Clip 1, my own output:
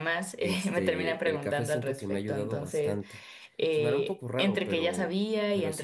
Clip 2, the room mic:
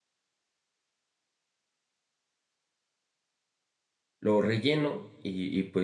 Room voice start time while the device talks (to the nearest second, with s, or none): 4 s